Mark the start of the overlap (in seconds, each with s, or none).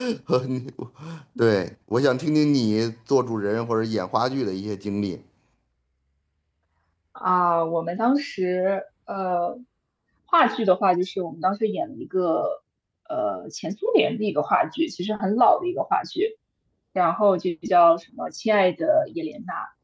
none